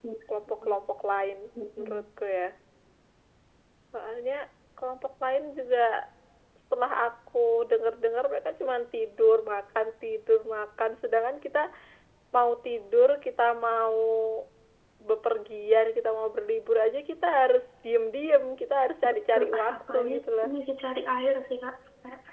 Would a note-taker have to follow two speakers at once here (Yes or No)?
Yes